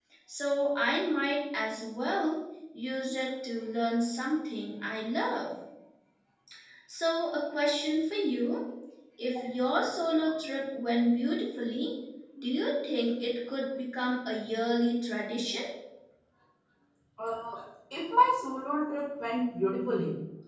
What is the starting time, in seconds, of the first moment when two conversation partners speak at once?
none

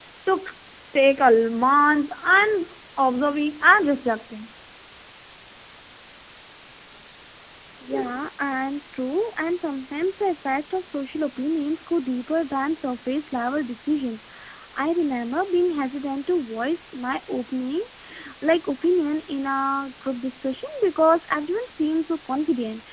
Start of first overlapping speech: none

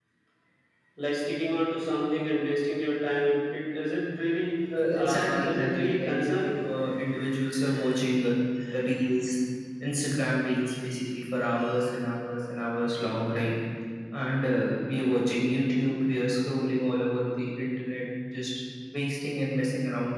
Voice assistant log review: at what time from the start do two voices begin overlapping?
4.9 s

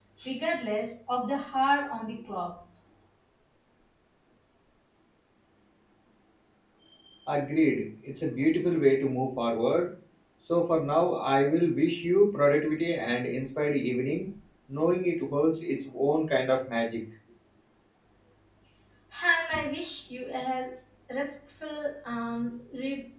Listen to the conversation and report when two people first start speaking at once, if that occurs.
none

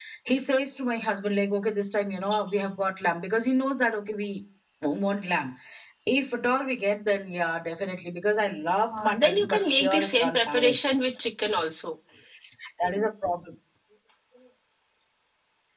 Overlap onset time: 8.8 s

